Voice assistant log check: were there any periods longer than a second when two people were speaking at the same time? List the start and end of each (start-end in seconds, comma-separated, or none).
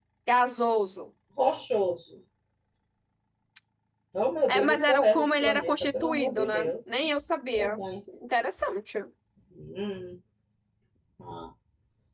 4.5-6.7